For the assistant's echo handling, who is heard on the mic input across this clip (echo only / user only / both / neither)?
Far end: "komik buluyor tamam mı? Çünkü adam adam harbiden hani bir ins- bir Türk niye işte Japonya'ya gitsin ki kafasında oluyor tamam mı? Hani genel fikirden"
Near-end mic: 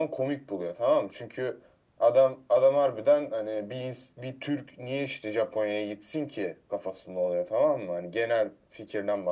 echo only